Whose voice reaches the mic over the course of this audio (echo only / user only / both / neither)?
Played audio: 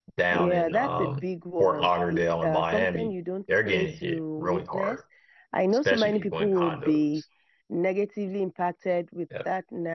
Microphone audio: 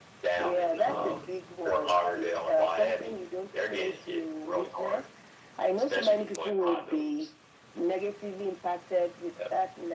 both